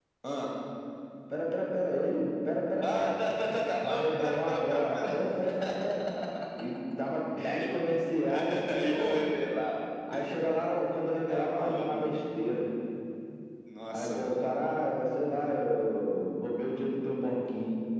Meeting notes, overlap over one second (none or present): present